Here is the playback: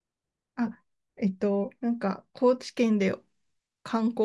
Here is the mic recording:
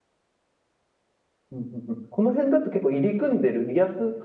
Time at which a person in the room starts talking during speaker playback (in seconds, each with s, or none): 1.5 s